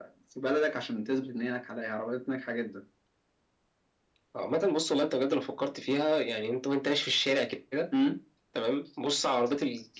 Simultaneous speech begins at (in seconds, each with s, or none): none